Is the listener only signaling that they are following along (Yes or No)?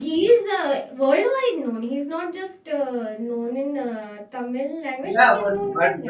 No